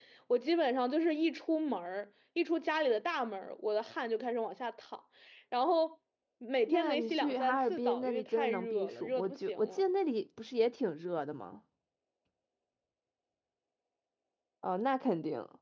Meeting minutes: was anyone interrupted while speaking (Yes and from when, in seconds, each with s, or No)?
Yes, from 6.7 s